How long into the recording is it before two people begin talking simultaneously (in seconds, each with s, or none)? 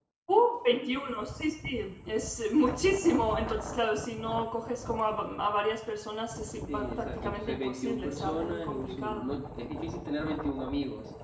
6.7 s